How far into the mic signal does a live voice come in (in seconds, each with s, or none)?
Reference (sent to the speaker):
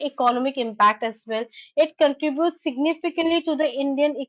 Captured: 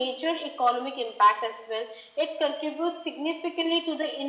none